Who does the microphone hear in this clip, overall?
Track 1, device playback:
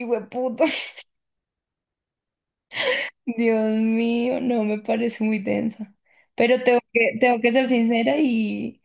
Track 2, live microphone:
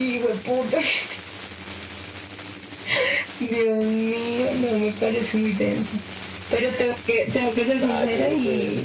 both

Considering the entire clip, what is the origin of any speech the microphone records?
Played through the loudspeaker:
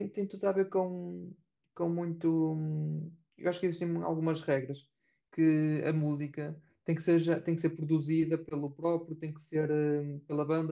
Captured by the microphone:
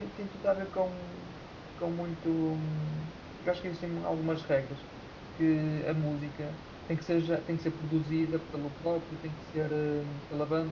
echo only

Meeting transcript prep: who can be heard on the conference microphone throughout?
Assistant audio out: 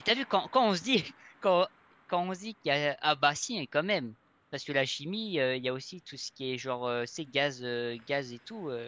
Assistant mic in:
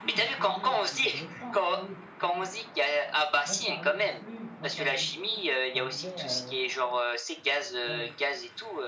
both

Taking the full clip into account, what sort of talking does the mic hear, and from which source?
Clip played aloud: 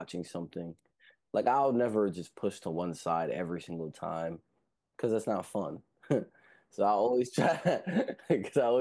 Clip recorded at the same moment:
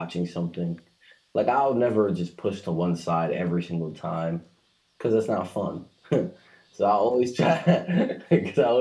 echo only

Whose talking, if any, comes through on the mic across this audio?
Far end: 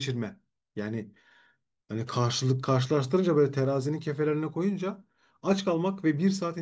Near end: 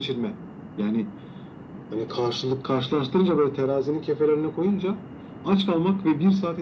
echo only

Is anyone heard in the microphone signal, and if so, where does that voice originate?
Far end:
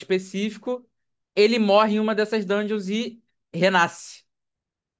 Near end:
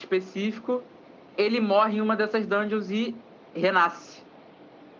echo only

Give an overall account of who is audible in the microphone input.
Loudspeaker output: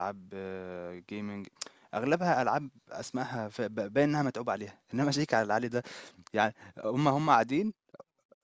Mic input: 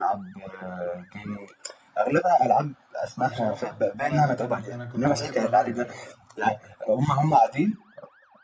both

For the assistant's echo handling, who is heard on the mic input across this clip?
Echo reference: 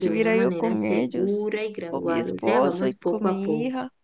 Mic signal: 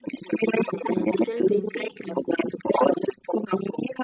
both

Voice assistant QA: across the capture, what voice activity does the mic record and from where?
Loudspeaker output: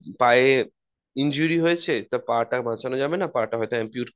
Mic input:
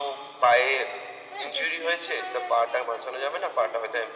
both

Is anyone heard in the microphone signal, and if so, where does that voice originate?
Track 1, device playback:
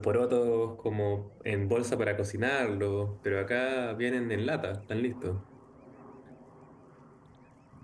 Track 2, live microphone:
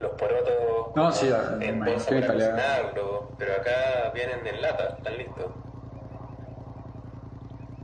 both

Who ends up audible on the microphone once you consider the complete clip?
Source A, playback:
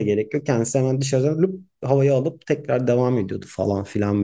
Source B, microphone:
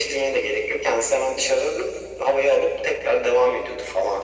echo only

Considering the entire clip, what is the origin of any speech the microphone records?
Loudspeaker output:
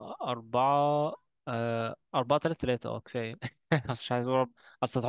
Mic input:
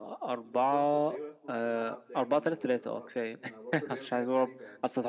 both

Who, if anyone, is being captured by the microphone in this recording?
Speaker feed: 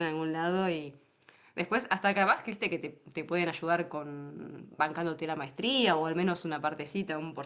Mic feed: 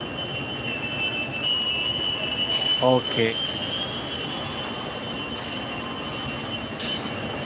user only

